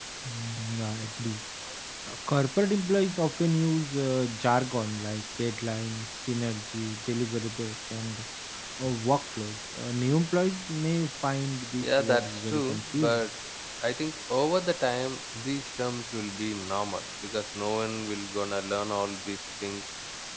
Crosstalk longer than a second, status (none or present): present